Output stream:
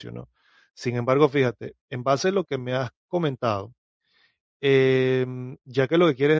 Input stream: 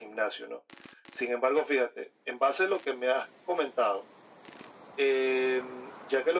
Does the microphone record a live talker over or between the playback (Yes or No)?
No